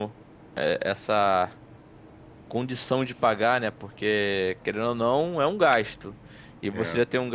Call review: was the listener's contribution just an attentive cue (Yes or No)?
Yes